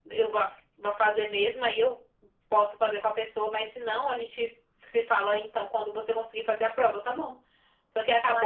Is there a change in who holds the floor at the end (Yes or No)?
No